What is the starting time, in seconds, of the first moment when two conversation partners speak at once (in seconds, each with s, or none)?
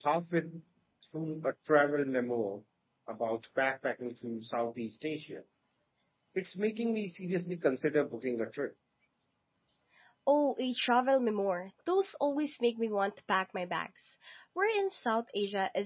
none